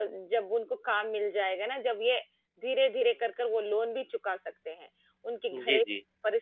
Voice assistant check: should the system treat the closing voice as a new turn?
No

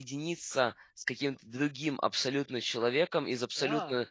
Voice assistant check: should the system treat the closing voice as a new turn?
No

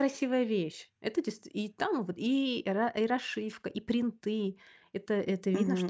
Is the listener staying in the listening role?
No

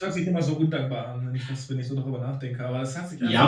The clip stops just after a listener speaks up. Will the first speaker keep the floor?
No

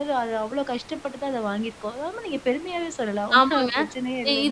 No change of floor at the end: No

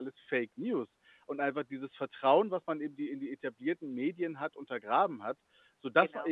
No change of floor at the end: Yes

